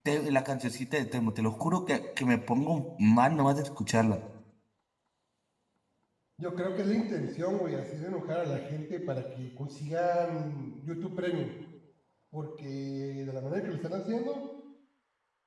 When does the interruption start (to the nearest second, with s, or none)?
none